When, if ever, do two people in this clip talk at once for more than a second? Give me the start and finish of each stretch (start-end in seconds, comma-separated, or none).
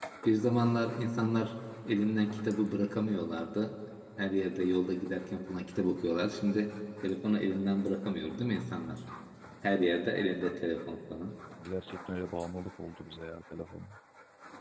none